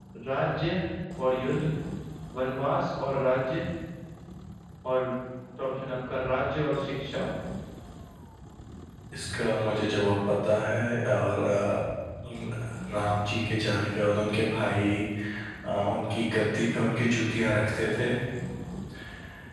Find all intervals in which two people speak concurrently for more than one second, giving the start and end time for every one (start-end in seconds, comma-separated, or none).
none